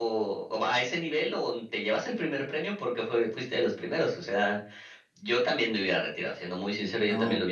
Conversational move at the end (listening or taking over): listening